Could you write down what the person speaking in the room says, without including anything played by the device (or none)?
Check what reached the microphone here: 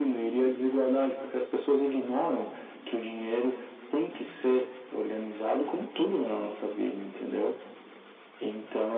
none